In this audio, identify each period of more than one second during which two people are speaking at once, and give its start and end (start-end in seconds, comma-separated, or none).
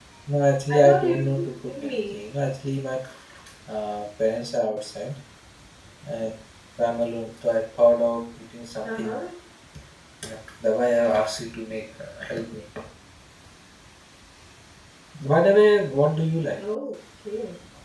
0.8-2.2